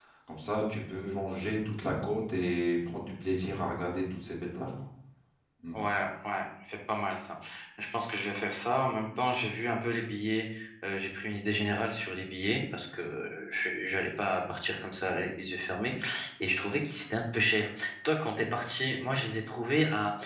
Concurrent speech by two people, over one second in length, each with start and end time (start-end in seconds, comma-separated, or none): none